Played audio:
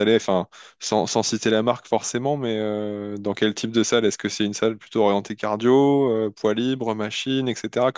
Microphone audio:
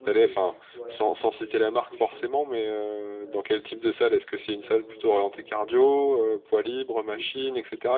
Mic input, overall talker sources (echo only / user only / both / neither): both